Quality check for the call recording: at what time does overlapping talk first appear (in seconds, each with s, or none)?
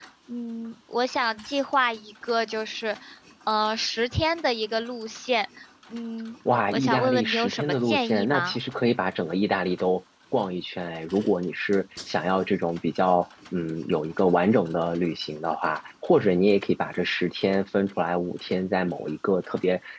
6.7 s